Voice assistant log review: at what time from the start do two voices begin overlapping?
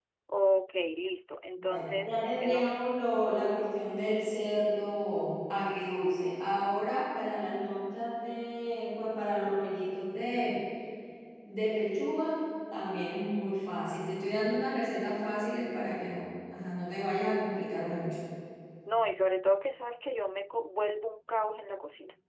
2 s

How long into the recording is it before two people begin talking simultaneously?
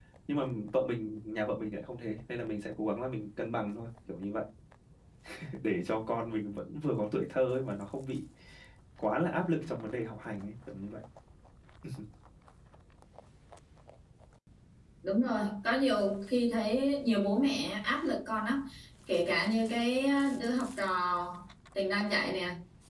none

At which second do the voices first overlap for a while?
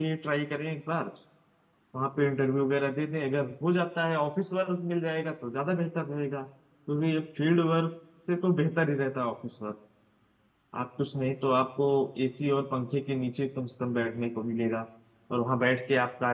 none

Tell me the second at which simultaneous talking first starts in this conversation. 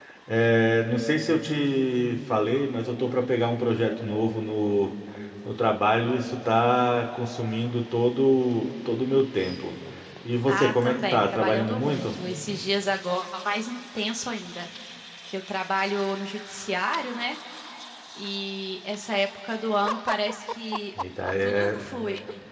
10 s

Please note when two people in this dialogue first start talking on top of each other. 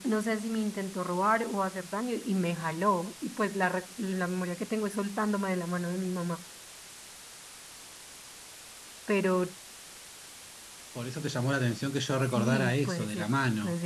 12 s

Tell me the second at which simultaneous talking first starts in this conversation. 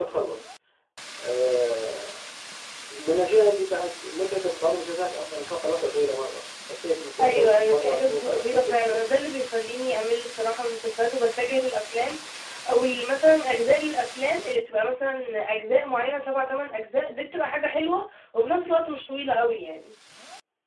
7 s

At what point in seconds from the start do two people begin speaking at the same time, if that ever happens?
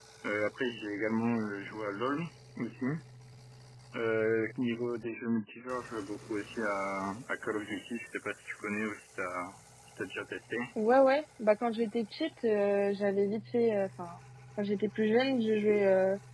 none

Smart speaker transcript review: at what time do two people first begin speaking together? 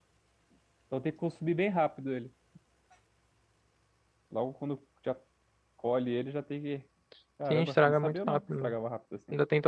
8 s

